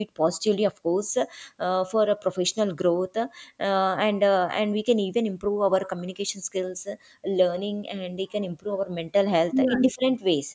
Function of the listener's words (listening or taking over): listening